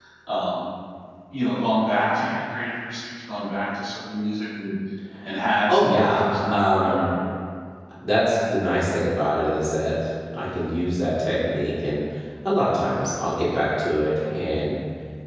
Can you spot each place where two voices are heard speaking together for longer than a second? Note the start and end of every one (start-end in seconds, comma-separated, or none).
5.7-7.0